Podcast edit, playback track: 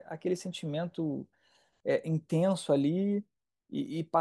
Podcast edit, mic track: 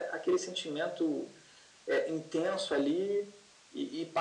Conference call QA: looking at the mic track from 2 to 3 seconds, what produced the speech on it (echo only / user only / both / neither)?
echo only